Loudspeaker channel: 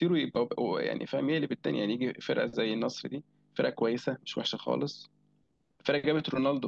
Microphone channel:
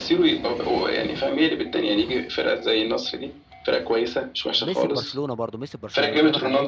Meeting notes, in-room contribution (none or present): present